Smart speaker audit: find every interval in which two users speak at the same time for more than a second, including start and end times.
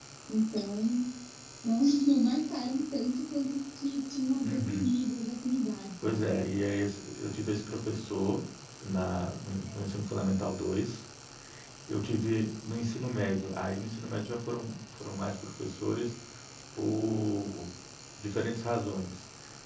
none

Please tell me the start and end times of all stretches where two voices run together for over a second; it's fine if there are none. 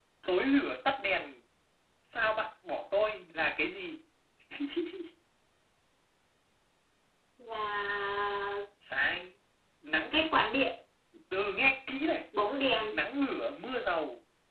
none

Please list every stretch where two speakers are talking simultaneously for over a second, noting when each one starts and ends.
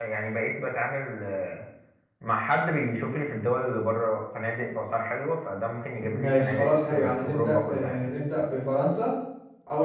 6.0-8.1

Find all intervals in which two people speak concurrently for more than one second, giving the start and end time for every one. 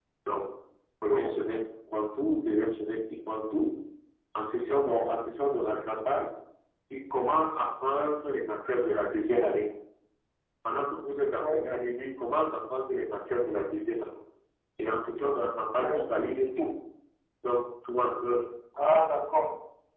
none

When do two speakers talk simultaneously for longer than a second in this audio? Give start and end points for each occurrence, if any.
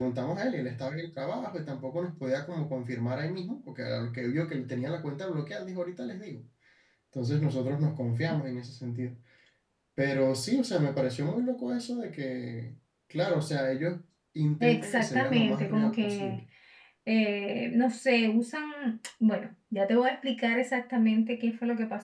14.6-16.4

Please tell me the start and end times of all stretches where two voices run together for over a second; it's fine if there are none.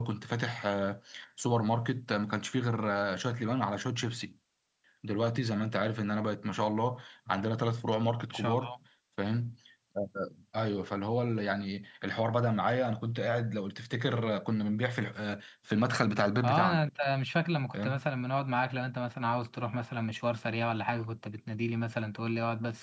none

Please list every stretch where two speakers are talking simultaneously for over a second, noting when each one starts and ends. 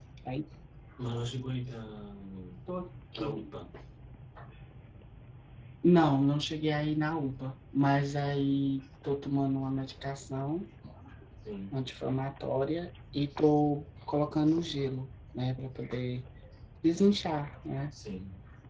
none

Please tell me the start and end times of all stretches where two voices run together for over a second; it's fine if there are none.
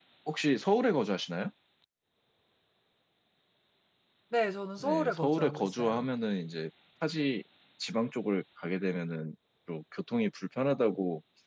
4.8-6.0

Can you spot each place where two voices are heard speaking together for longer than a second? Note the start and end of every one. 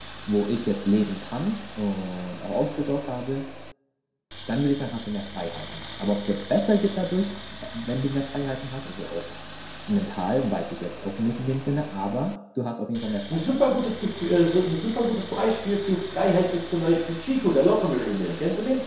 none

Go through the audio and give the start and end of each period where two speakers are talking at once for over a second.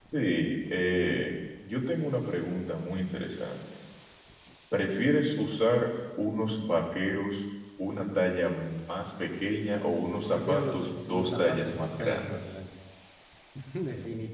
10.3-12.6

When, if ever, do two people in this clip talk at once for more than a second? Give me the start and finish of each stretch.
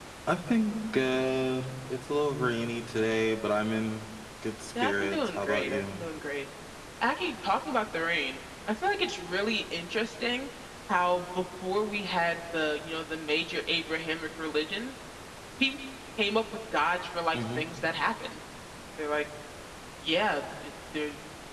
4.8-6.0

